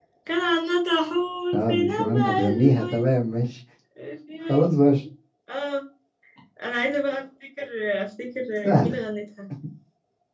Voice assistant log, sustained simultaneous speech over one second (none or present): present